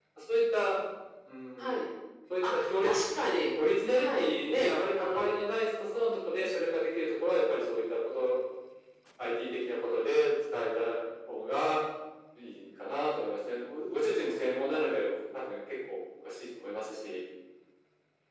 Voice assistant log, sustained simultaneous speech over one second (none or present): present